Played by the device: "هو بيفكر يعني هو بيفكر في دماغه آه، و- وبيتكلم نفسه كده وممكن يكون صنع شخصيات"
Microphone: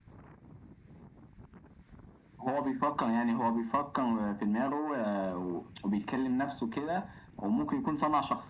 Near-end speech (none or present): none